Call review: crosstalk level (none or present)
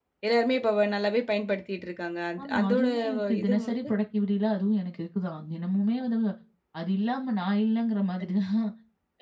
present